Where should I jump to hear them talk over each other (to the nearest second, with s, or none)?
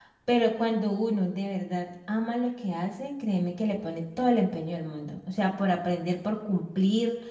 none